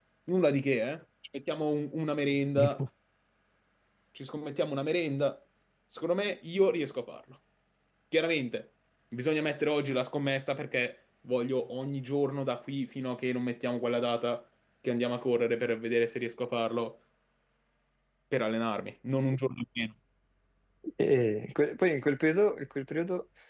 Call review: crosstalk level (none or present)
none